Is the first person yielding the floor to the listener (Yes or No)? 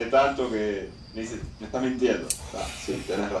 Yes